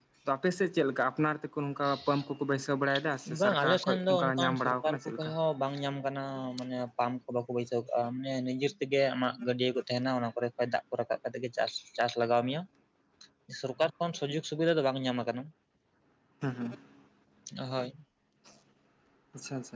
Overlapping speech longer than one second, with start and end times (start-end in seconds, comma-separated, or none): 3.4-5.3